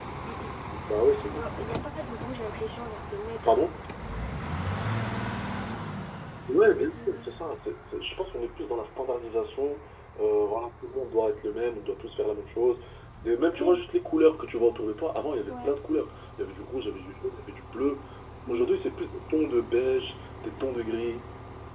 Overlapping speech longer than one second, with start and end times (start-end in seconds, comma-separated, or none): none